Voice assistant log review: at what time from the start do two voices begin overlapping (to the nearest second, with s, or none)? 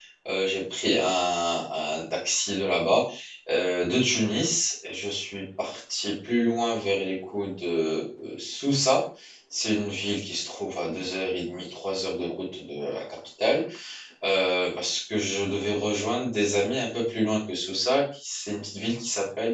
none